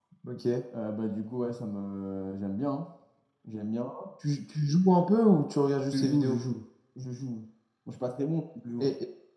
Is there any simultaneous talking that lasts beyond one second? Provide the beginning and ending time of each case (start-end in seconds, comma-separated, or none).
none